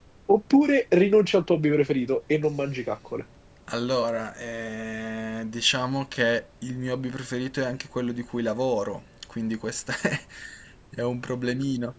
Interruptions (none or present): none